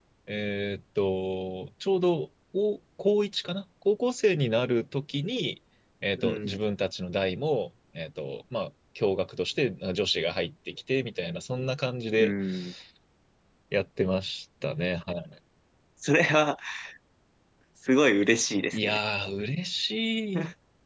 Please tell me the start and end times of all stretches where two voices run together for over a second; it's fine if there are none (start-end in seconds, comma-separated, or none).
none